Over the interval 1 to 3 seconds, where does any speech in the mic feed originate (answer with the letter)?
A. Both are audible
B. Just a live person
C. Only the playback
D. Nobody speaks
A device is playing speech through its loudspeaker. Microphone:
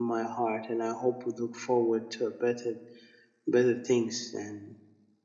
B